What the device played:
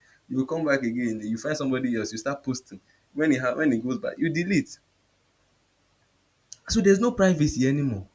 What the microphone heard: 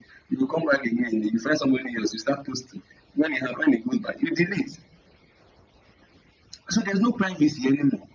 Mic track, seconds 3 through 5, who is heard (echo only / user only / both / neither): echo only